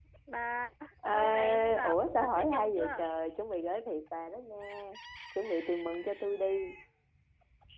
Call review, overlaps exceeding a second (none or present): present